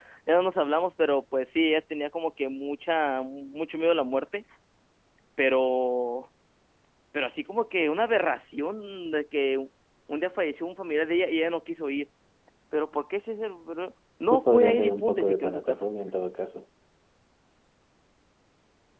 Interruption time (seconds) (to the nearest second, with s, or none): 14 s